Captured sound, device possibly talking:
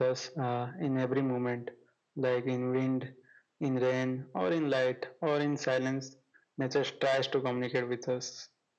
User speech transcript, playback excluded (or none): none